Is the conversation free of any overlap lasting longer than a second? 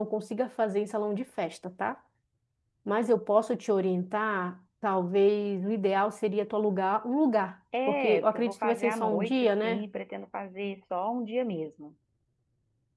No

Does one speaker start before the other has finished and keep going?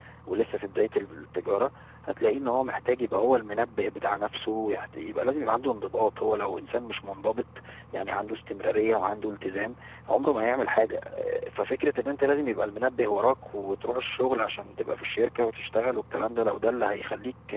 No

